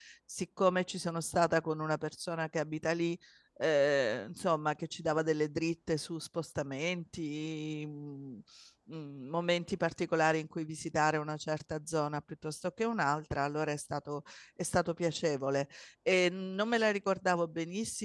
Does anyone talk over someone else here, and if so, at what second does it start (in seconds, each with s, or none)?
none